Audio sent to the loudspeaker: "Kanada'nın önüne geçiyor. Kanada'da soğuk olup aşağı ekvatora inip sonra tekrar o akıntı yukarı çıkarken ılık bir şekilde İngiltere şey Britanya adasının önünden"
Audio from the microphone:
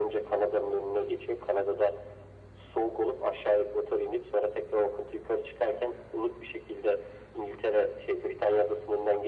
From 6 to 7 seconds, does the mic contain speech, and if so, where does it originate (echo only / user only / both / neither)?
echo only